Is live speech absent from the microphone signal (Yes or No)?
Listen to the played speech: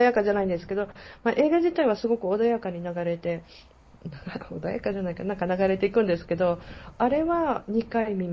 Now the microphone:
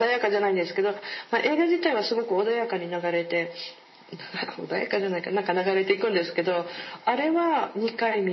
Yes